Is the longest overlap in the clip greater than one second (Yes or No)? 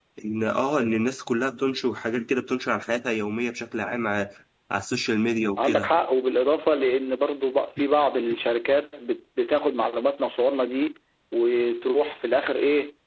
No